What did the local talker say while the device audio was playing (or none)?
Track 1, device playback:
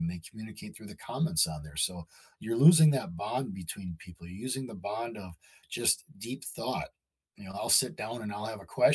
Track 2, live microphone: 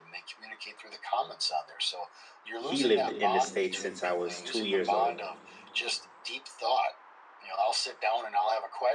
he lived in the states since I was two years old,